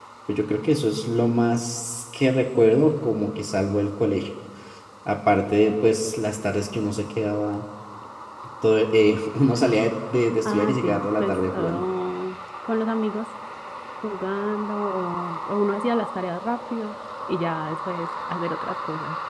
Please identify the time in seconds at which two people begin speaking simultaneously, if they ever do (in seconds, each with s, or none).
10.4 s